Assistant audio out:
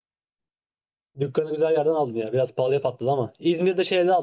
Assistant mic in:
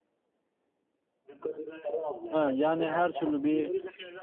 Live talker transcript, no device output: ha, yani her türlü bir

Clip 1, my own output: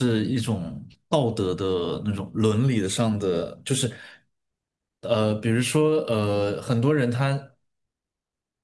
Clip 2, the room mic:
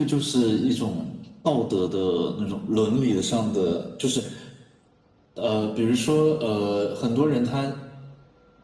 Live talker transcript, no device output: none

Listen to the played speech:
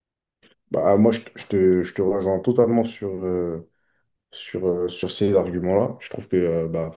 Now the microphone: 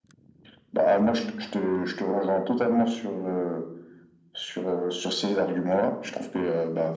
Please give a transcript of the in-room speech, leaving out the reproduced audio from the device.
none

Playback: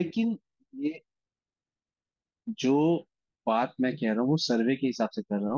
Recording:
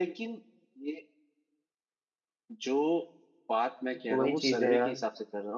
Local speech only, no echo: तो वही चीज है यार

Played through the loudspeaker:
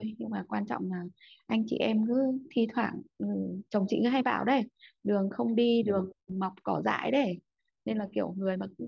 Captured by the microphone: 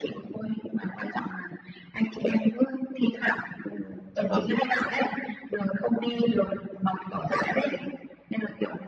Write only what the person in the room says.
dạ vâng

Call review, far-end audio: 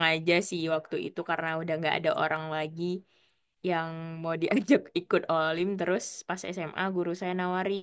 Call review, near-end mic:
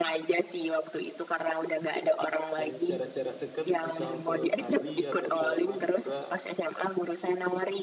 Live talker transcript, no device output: Yang jarak-jarak dekat, misal ke Bali atau ke Madura,

